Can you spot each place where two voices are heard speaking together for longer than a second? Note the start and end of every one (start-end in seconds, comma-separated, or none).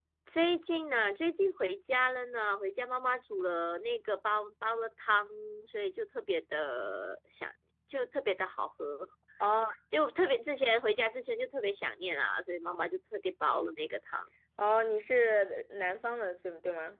none